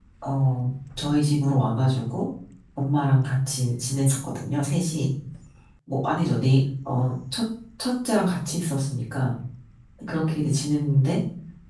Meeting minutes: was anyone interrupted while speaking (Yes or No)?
No